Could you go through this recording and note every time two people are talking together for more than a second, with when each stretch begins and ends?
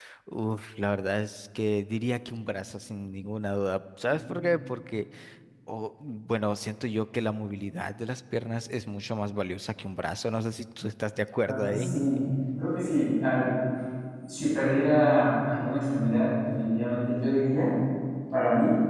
none

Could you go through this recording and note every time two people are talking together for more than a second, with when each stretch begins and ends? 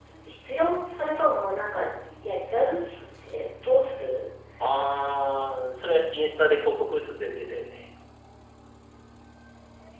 none

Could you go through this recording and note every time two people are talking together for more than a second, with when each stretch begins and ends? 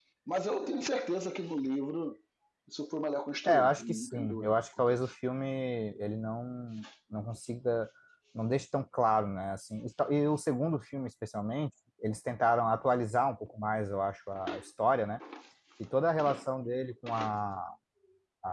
3.4-5.1

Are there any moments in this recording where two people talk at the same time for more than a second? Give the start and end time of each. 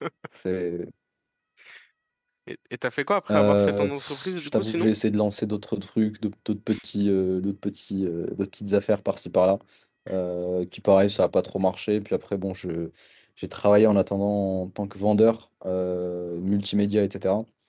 3.3-4.9

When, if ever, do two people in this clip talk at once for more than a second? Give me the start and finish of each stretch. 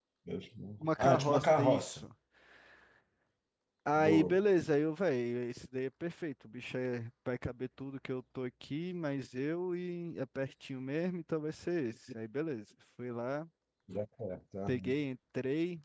0.8-2.0

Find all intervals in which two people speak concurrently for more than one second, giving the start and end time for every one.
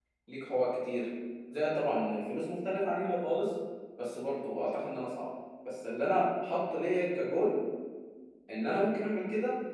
none

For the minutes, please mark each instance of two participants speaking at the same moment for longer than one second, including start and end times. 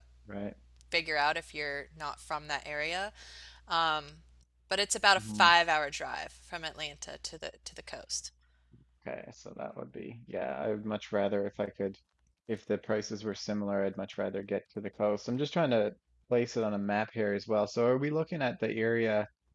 none

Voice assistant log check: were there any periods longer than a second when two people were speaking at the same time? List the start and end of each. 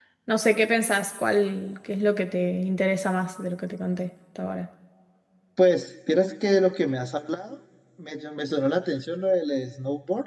none

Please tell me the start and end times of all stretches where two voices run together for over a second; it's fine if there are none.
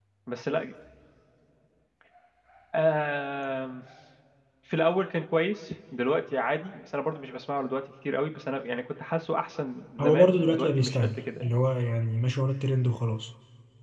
10.0-11.5

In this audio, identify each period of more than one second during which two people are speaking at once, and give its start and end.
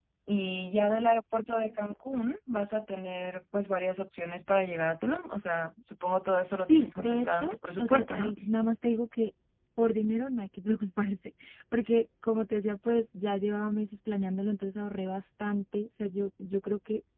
6.6-8.3

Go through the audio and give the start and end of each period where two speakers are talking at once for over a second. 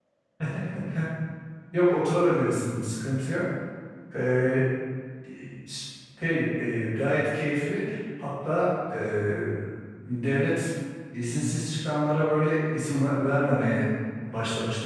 none

